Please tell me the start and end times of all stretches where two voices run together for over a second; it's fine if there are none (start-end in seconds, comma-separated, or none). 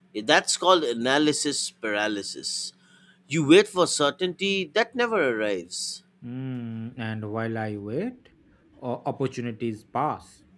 none